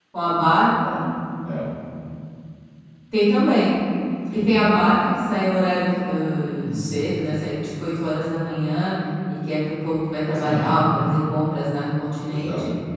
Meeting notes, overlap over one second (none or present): none